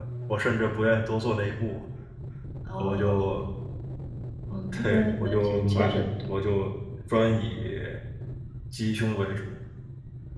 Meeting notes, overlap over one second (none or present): present